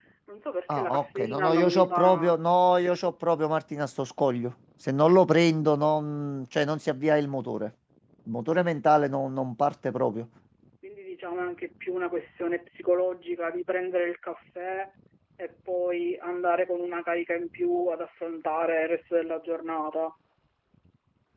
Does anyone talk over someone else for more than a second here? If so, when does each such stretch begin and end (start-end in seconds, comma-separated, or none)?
0.7-2.3